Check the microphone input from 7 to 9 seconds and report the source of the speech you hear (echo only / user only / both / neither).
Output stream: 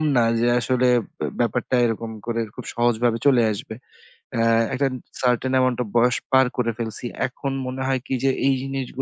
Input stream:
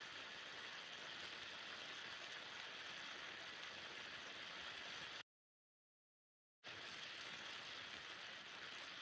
neither